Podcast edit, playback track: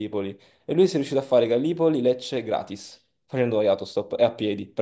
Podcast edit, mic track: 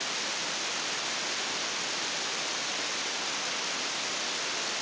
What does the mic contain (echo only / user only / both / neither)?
neither